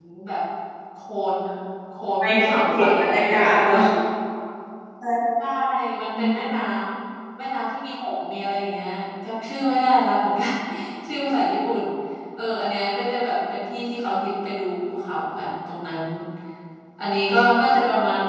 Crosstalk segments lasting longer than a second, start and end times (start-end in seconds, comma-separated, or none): 2.2-3.8